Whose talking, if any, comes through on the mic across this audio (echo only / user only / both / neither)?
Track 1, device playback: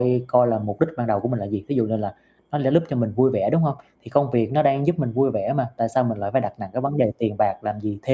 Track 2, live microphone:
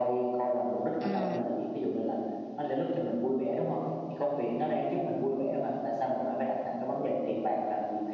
both